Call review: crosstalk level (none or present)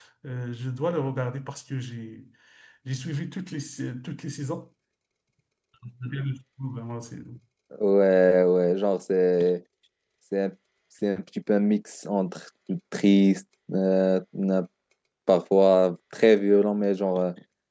none